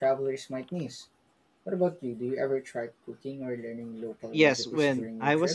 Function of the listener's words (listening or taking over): taking over